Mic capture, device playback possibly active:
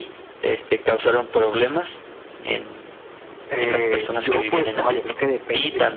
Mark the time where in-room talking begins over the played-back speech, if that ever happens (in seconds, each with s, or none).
3.5 s